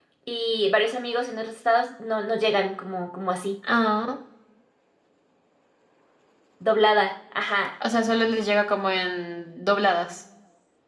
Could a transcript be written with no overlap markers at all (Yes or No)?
Yes